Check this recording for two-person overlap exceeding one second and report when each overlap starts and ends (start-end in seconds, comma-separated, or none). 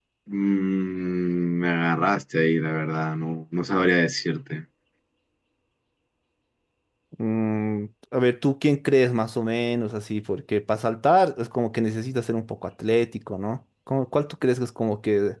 none